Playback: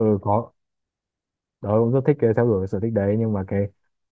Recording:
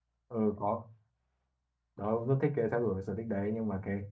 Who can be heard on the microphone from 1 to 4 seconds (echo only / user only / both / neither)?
echo only